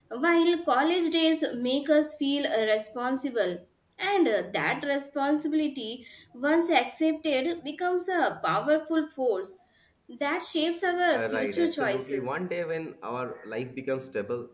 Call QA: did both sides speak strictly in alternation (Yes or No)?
No